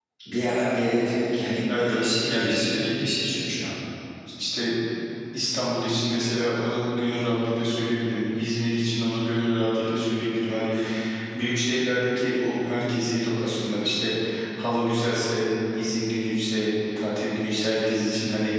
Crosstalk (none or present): present